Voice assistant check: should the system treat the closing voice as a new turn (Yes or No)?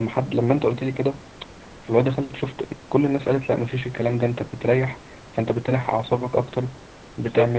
Yes